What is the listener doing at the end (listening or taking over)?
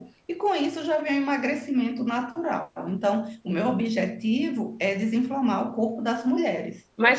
taking over